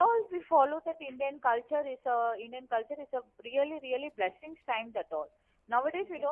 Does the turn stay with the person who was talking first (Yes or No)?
Yes